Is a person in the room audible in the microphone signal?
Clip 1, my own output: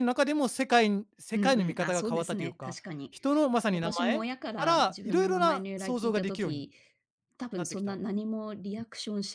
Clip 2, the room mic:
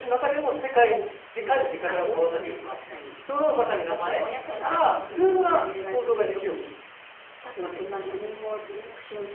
No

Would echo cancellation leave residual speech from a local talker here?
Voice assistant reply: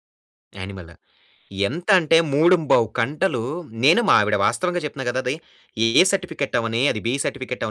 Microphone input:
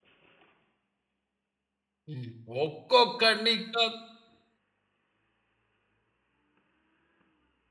Yes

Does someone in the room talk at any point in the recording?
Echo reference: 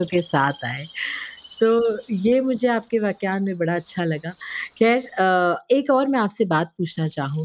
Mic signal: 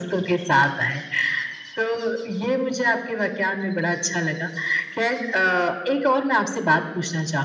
No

